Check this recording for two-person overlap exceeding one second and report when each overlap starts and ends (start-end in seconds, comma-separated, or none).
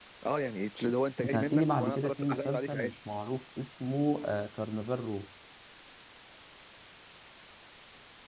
1.2-2.9